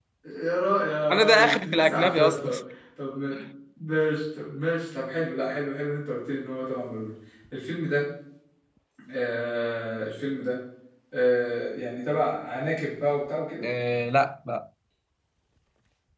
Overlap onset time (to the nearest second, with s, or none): 1 s